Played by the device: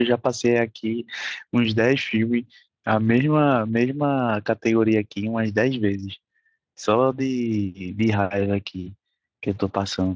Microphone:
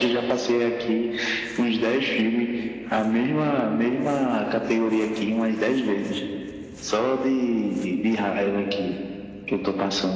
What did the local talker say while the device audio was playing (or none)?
none